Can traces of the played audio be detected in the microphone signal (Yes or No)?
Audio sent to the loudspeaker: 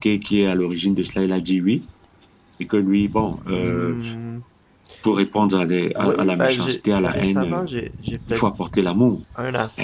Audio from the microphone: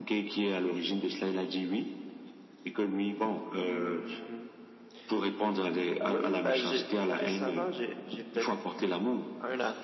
Yes